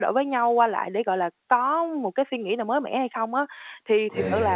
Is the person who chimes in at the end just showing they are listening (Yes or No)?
Yes